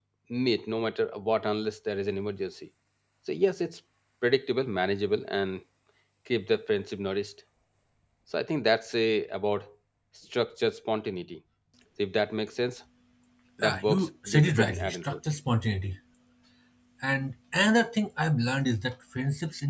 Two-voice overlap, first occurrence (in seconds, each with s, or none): 13.6 s